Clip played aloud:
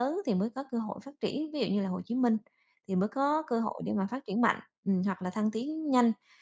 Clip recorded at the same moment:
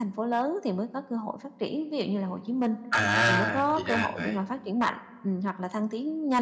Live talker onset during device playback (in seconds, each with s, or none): 2.9 s